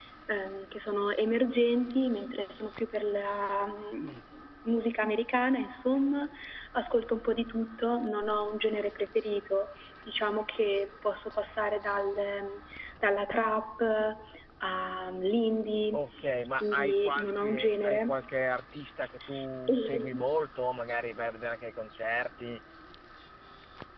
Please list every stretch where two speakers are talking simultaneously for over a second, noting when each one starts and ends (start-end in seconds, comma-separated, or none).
16.6-18.1